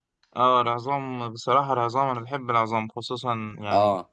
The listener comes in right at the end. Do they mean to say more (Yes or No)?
No